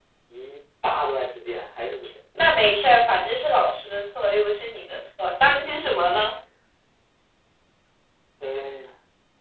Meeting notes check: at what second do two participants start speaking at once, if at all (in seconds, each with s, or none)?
none